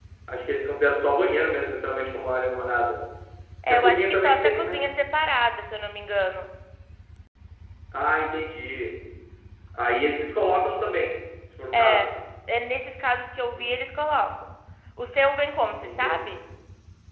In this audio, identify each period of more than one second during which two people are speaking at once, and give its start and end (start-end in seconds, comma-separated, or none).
3.7-4.9